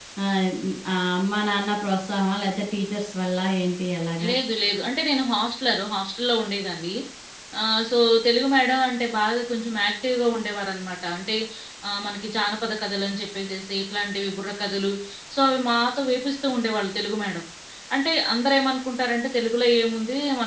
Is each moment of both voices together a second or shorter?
Yes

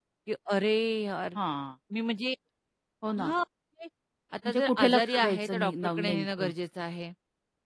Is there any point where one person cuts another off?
Yes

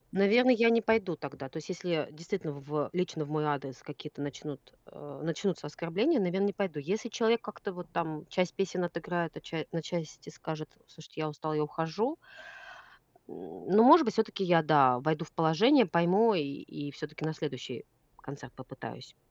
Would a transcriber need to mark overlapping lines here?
No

